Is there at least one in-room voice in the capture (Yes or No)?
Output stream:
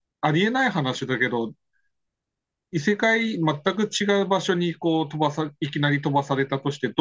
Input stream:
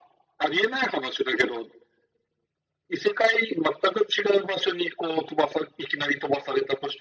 No